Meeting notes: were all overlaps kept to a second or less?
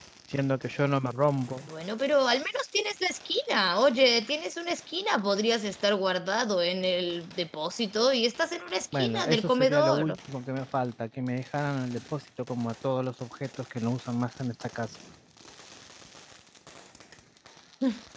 No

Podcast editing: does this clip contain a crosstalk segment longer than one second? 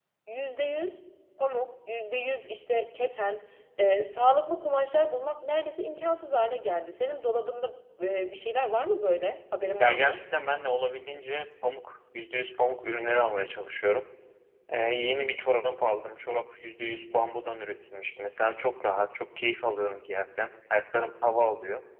No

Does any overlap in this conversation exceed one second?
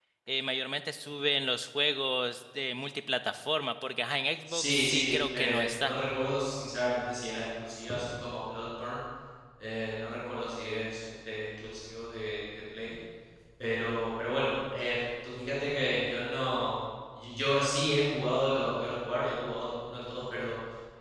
Yes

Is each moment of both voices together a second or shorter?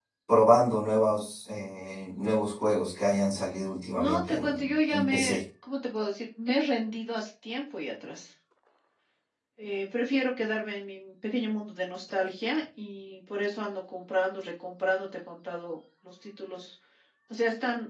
No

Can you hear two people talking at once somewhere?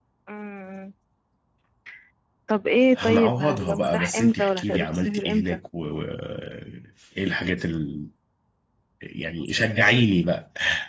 Yes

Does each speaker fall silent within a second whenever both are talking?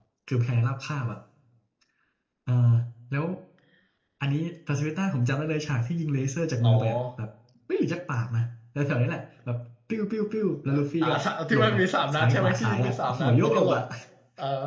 No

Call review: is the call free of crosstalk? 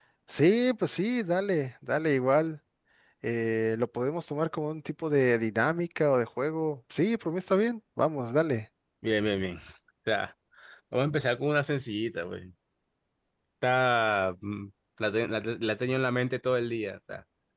Yes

